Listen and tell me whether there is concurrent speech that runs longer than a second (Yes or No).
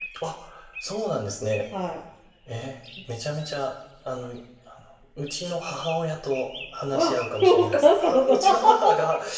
Yes